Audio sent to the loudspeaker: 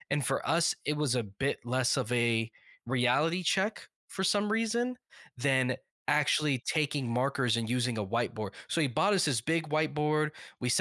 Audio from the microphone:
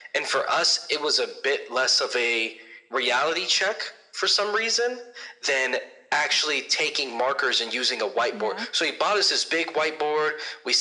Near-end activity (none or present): present